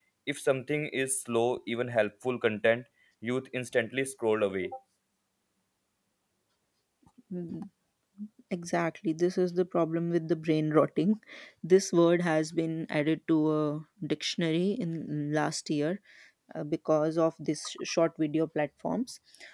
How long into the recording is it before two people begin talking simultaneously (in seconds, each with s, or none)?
none